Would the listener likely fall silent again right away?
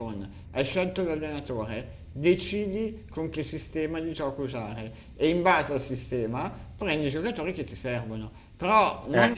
Yes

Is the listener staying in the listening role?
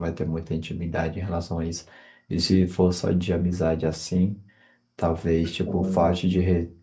Yes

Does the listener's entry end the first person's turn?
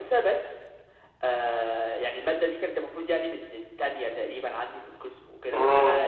No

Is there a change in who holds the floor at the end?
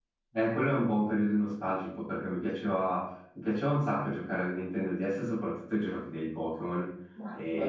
No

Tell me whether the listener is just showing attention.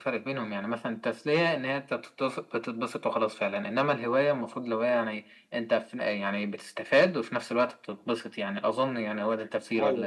No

